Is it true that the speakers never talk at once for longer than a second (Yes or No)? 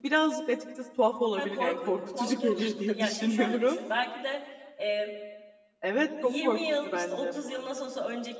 No